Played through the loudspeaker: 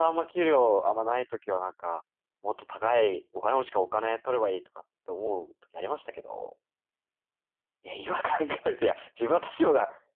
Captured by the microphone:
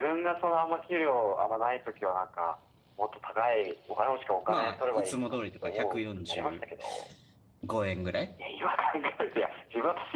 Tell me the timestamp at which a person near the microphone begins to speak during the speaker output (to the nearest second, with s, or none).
4 s